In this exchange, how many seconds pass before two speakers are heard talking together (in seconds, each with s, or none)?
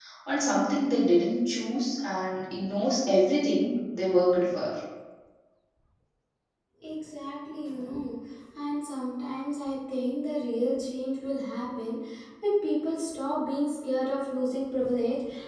none